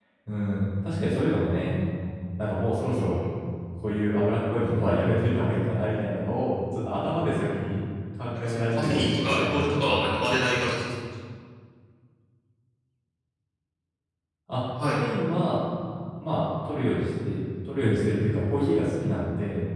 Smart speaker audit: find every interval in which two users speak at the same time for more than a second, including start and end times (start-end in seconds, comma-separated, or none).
8.3-10.7